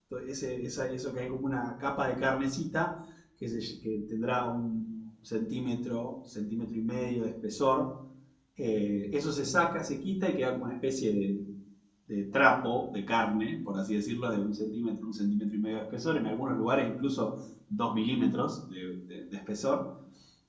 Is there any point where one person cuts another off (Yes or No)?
No